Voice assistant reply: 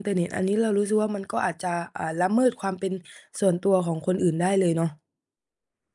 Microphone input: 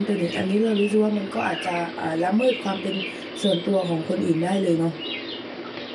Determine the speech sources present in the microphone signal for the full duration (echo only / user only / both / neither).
echo only